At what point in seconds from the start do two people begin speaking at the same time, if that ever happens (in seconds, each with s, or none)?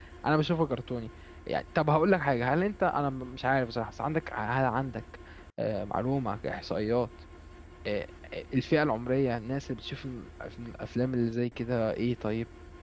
none